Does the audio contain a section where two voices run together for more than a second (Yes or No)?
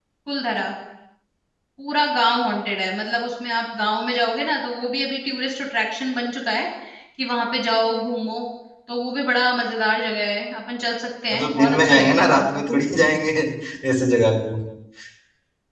Yes